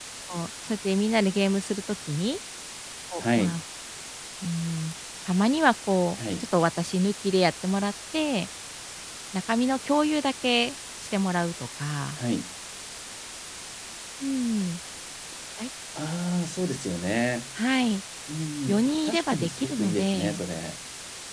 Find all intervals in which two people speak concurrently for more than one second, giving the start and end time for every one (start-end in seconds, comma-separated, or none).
18.7-20.4